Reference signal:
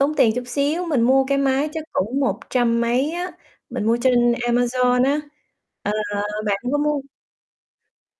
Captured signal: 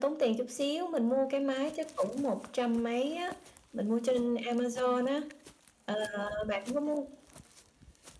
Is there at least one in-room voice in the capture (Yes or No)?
No